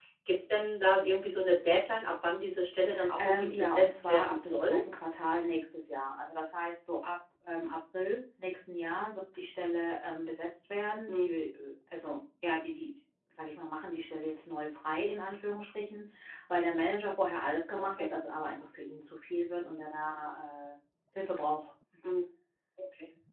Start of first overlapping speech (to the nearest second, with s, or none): 3 s